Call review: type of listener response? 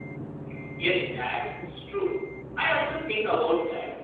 listening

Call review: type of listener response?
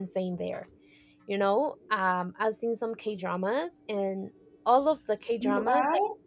listening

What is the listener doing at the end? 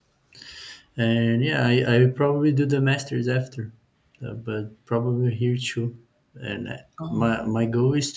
listening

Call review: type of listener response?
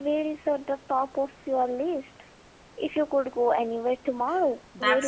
taking over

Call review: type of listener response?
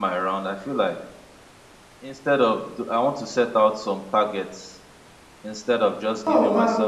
listening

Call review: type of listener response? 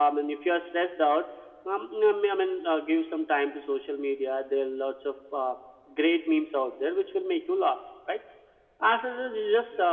listening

